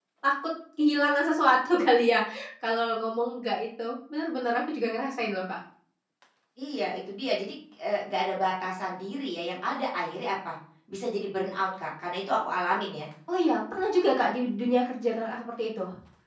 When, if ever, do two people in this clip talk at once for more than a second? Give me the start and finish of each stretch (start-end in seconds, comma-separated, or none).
none